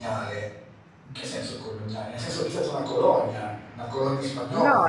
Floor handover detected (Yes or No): Yes